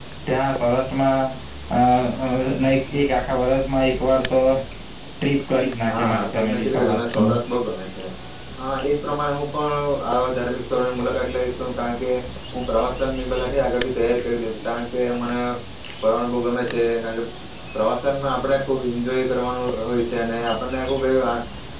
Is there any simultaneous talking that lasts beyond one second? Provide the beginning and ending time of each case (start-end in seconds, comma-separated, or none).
5.9-7.3